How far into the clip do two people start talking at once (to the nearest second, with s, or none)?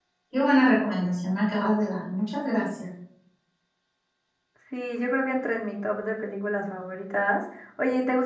none